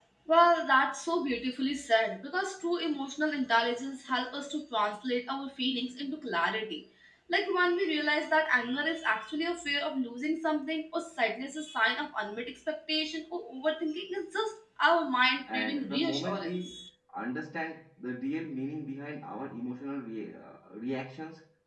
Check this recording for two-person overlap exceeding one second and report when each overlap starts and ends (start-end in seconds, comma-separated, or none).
15.5-16.8